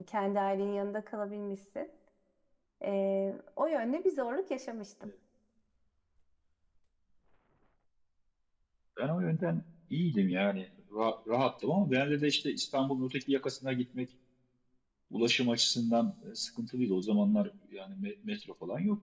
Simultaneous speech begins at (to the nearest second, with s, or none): none